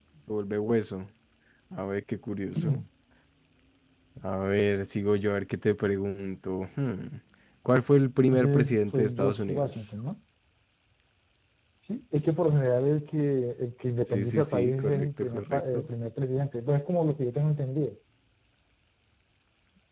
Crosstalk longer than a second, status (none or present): present